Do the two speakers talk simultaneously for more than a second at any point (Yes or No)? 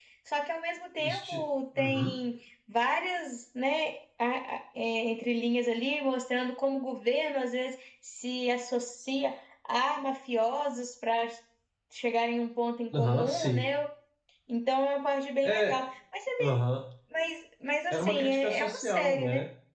Yes